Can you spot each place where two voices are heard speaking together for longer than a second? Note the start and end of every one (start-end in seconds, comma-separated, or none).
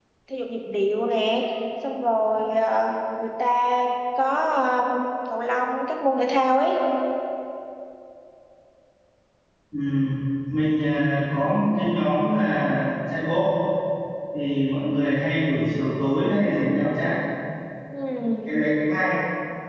none